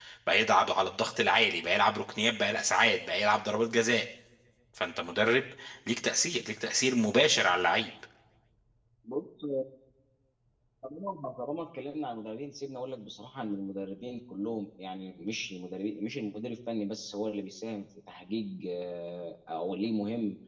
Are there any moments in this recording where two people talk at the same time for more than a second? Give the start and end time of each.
none

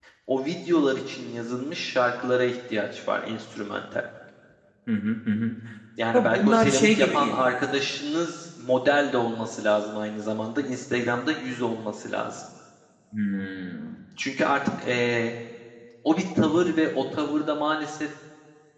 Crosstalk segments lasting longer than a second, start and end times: 6.1-7.5

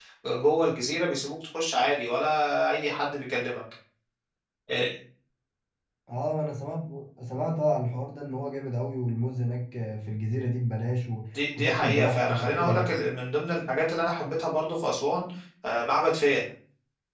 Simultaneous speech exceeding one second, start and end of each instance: 11.6-12.9

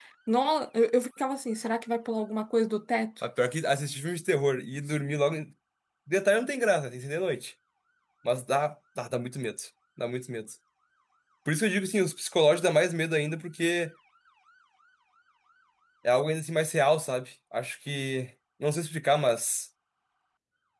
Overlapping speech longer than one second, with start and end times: none

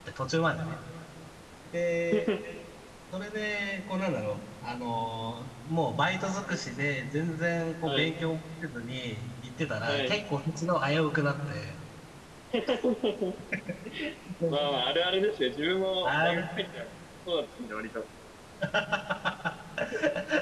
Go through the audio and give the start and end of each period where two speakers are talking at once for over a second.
none

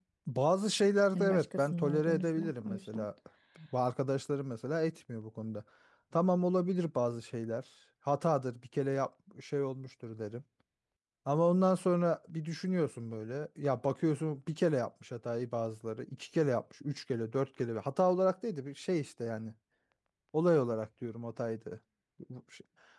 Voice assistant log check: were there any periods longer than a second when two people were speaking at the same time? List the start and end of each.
1.1-3.0

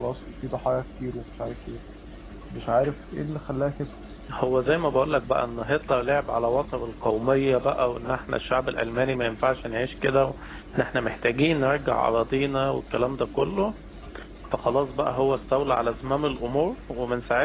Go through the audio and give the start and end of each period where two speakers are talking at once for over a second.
none

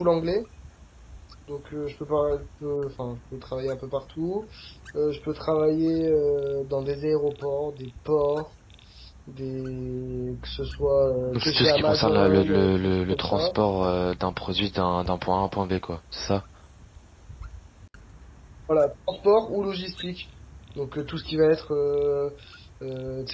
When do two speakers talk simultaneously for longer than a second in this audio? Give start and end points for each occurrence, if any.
11.3-13.5

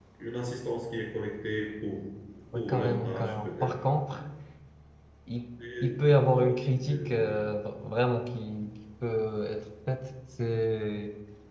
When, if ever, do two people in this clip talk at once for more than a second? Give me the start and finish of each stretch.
2.5-3.8, 5.8-7.5

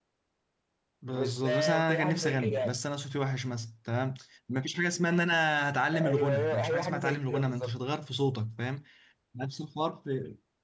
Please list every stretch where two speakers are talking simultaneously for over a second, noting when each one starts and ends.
1.1-2.7, 5.9-7.7

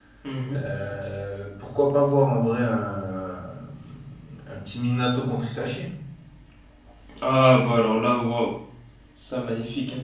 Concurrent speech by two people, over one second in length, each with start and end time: none

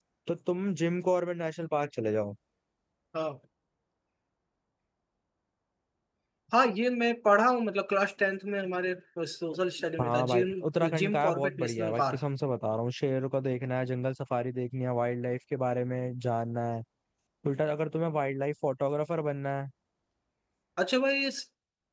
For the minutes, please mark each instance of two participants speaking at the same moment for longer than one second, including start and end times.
10.0-12.2

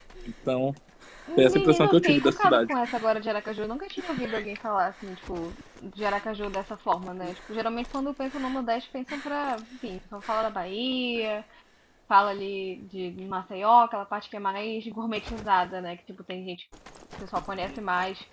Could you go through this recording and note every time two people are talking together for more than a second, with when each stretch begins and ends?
1.4-2.7

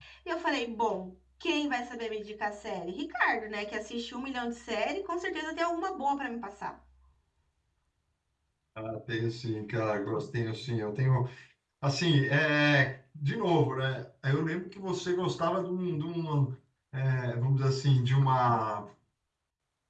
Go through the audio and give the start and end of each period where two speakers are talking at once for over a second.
none

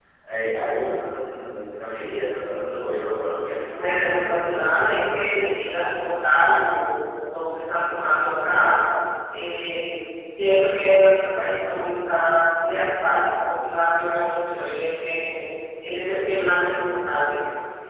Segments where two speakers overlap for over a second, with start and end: 3.7-5.0

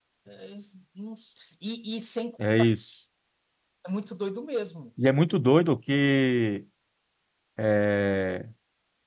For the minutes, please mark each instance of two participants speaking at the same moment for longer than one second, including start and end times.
none

